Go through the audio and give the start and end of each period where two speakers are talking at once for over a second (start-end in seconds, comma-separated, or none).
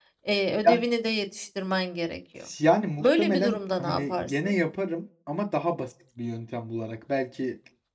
3.0-4.5